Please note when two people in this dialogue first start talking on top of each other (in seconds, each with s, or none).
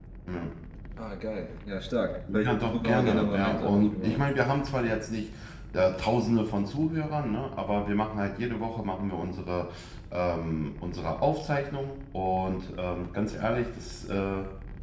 2.3 s